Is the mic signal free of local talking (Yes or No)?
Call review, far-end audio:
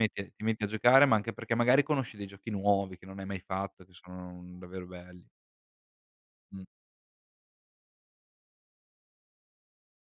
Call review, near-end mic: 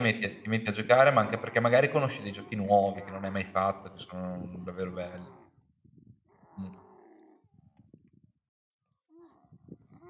Yes